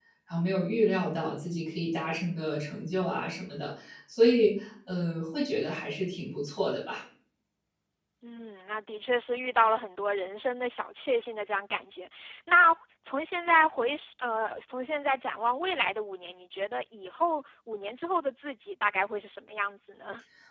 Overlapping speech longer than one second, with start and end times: none

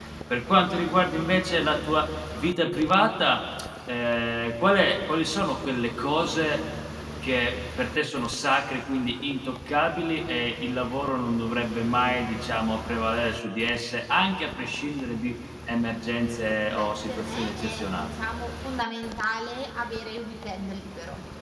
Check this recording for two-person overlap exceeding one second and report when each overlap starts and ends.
16.7-18.1

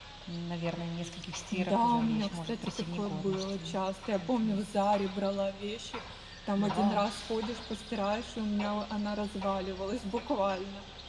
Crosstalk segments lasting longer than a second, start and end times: 1.5-3.7

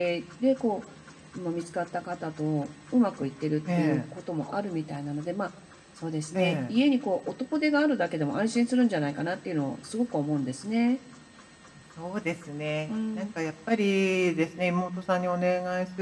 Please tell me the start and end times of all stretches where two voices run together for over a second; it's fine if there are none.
none

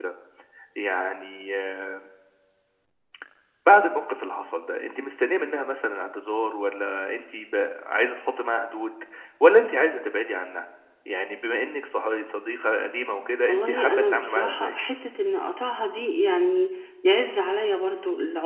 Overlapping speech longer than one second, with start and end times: 13.5-14.7

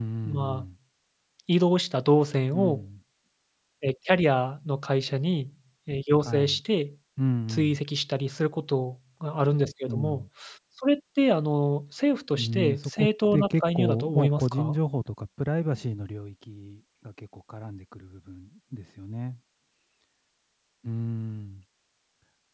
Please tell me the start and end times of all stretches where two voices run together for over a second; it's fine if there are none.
12.4-14.8

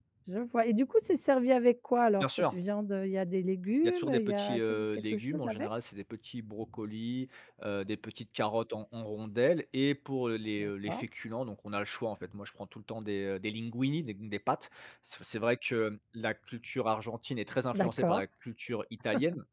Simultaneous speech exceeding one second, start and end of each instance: 3.8-5.7

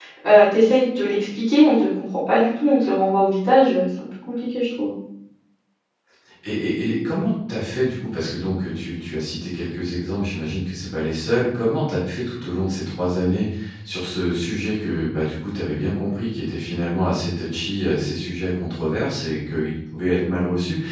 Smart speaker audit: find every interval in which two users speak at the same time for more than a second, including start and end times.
none

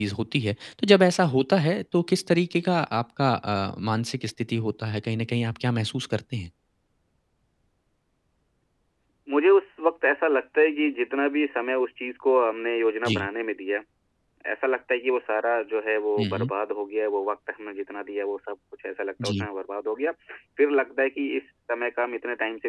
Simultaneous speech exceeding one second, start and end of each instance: none

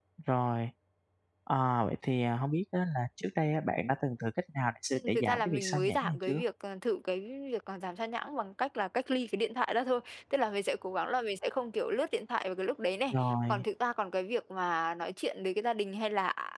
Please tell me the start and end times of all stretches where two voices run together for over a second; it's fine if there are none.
5.0-6.4

